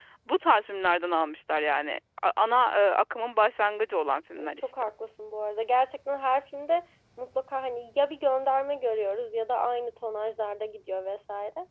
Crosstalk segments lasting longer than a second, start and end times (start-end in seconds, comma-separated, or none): none